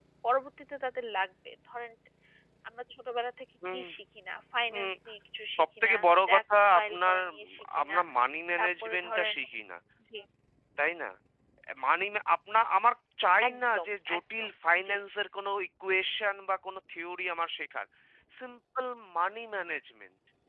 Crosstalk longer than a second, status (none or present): present